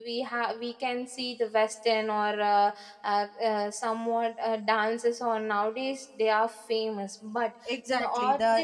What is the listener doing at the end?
taking over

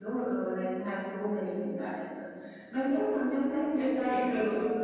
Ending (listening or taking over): taking over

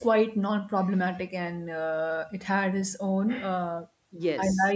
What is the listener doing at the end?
listening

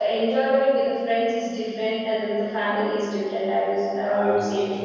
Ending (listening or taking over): taking over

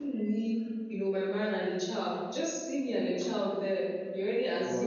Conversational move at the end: taking over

